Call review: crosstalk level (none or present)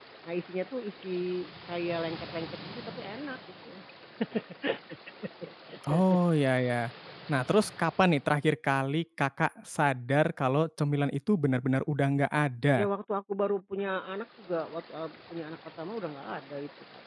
none